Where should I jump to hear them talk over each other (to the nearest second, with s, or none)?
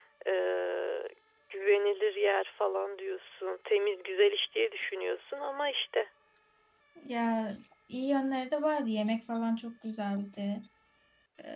none